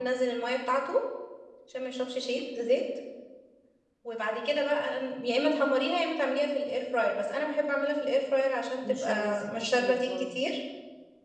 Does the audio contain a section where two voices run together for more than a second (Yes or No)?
Yes